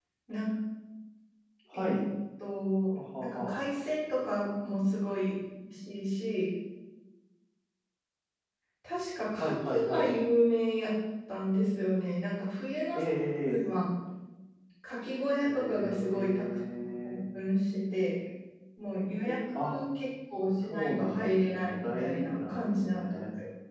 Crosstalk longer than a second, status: present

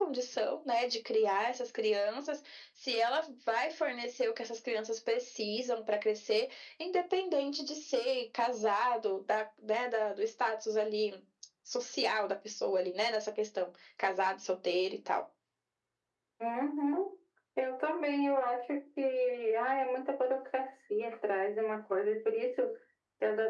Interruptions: none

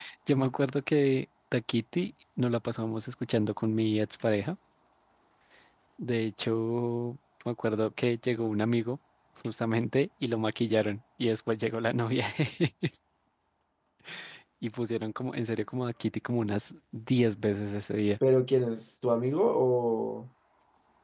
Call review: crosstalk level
none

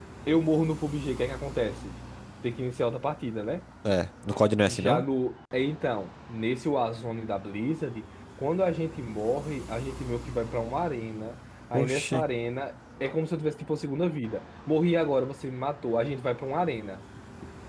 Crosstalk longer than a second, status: none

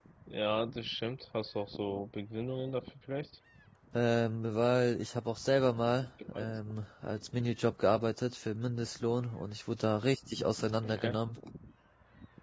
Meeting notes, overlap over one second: none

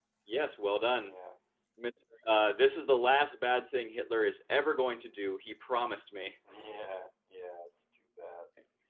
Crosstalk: none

